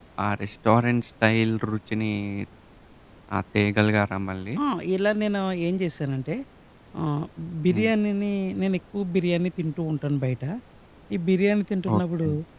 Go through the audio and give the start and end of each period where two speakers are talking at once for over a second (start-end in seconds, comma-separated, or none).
none